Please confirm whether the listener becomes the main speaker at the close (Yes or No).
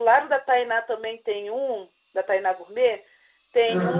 No